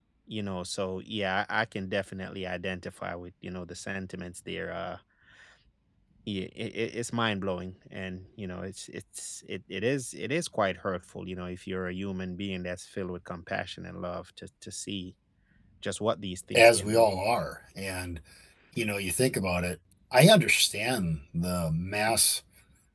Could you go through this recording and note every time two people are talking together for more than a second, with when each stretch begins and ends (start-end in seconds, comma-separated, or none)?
none